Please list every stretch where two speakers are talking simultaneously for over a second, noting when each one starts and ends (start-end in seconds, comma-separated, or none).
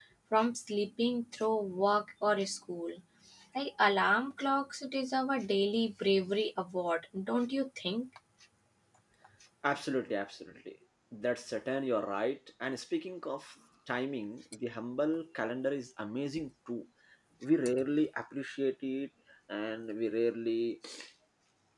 none